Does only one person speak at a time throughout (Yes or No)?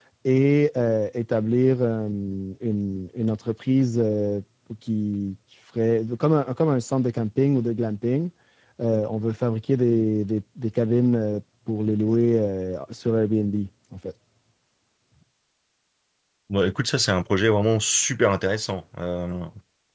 Yes